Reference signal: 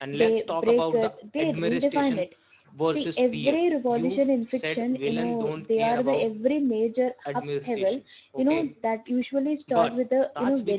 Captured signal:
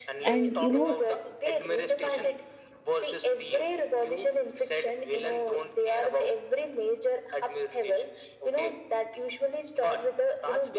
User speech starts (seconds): 0.3 s

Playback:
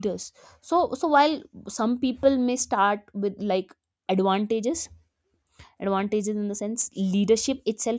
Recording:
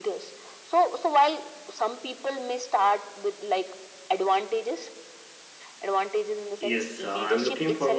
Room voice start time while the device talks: 6.6 s

